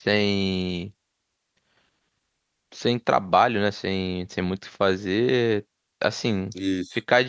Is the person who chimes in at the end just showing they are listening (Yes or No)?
Yes